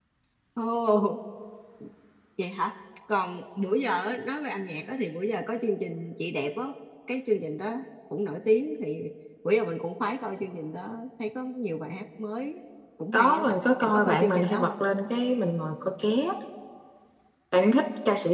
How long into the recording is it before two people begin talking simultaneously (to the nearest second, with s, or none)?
13 s